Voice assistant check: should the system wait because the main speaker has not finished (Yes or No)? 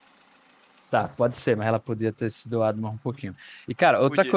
Yes